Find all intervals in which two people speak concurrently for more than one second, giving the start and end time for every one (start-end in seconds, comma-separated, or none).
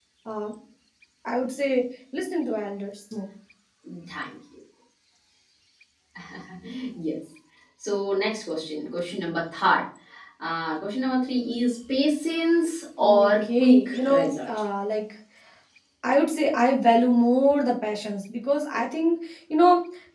13.0-14.5